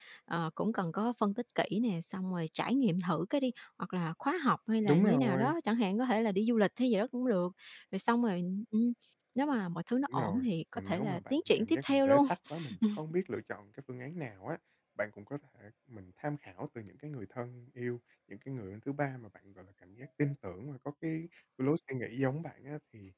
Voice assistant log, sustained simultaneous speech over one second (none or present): present